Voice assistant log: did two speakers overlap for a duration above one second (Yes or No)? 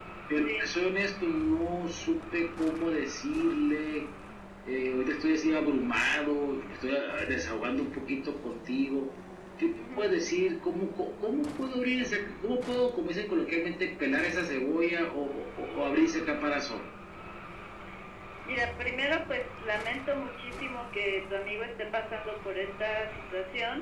No